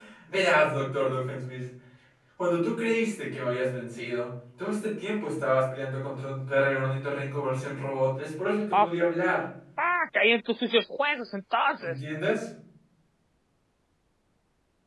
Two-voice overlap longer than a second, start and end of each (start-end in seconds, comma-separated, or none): none